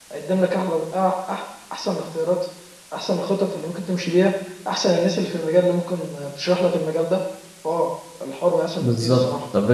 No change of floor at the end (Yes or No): No